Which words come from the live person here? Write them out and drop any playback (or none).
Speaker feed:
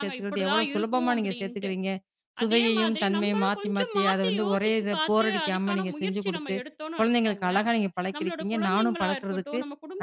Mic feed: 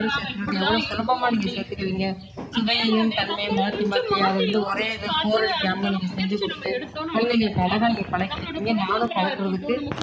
none